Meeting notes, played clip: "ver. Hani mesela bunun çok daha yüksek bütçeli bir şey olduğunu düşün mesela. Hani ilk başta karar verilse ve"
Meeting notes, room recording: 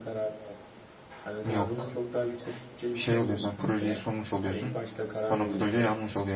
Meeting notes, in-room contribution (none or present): present